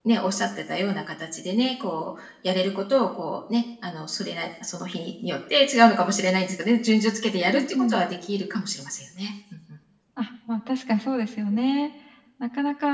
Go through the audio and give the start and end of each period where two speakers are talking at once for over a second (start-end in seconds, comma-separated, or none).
none